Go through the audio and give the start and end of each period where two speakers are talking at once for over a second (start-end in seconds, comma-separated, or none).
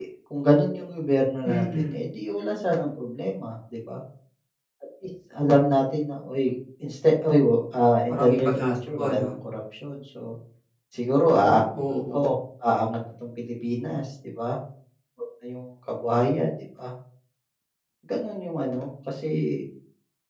8.1-9.3